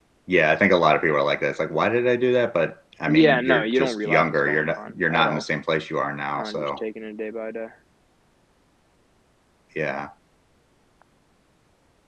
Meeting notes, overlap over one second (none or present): present